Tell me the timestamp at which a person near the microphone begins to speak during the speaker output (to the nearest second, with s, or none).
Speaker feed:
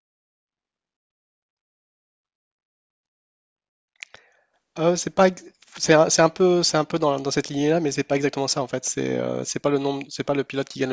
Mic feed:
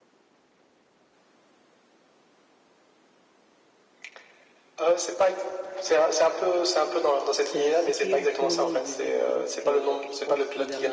8 s